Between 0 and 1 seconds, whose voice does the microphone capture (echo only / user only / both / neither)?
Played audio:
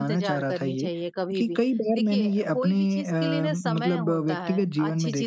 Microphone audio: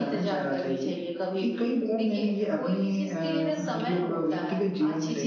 echo only